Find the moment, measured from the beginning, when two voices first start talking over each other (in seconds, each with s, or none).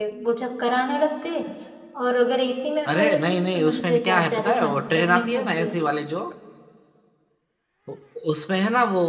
2.9 s